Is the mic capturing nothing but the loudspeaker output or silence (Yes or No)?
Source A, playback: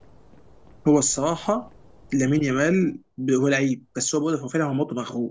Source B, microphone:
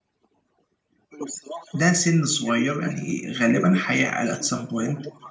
No